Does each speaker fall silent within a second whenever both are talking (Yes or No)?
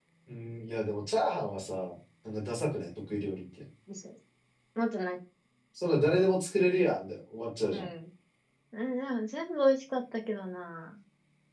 Yes